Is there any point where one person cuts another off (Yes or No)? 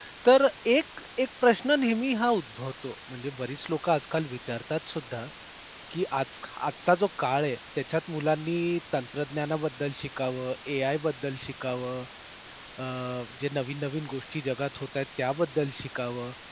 No